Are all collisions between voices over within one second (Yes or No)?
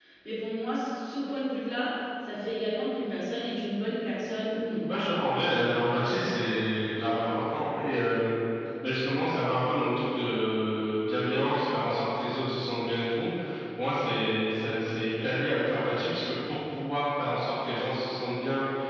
Yes